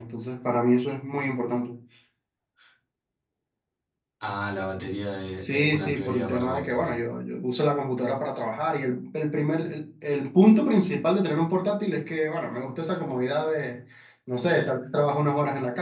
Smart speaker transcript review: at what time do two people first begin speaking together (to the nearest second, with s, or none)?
5 s